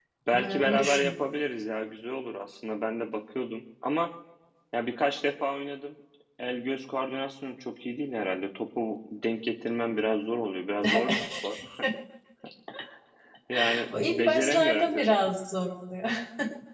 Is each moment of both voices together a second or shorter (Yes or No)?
No